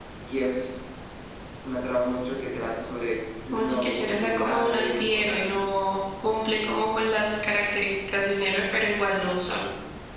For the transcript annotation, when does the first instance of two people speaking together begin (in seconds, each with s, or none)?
3.5 s